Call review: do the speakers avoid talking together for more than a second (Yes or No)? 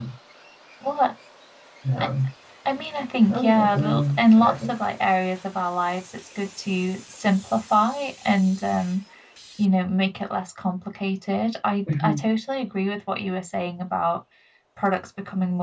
No